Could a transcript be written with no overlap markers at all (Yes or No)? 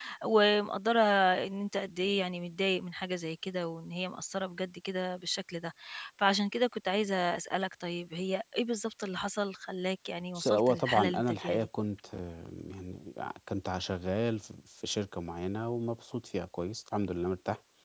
No